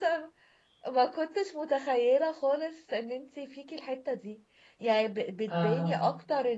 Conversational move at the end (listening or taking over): listening